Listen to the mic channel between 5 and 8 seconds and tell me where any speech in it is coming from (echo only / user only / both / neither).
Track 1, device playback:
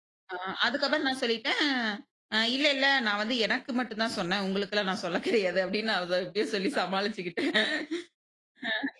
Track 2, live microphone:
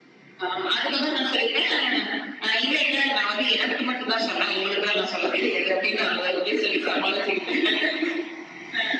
echo only